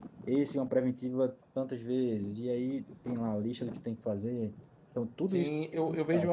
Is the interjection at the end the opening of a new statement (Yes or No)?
Yes